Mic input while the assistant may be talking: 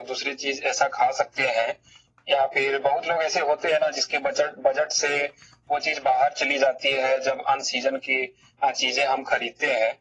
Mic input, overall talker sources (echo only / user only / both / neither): echo only